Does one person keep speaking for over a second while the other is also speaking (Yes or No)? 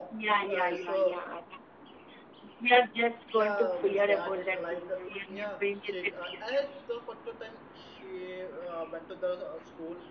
Yes